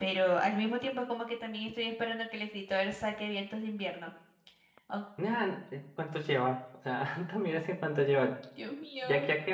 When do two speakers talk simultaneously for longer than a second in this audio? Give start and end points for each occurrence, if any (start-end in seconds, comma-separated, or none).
none